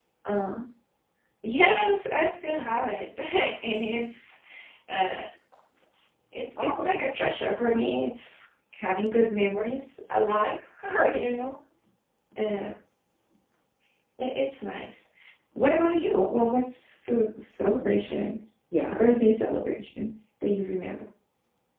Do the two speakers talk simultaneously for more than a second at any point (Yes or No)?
No